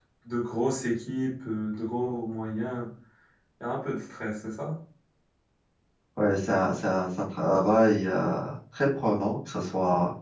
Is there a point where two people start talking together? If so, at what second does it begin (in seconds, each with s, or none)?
none